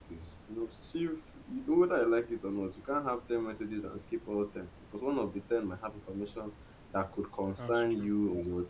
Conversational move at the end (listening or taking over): listening